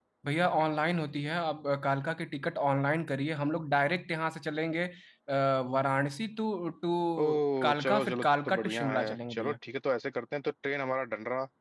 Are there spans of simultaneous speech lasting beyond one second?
Yes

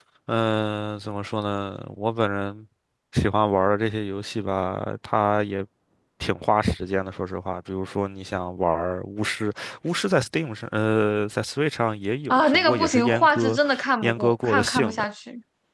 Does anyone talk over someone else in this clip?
Yes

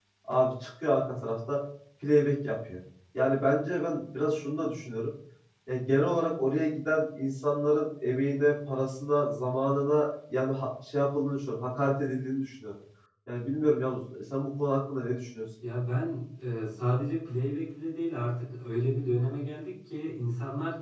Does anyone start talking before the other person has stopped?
No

